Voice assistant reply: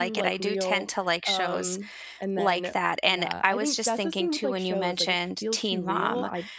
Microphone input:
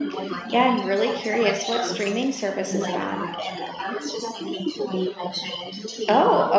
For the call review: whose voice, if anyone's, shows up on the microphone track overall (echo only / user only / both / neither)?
both